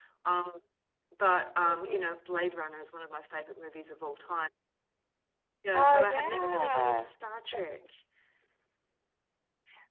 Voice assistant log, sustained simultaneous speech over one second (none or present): present